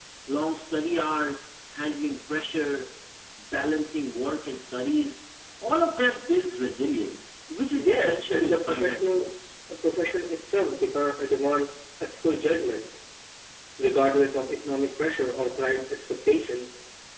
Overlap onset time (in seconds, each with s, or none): 7.7 s